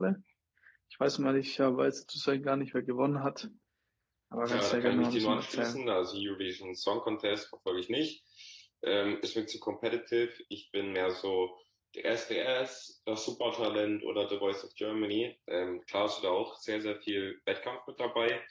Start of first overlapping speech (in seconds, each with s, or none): 4.5 s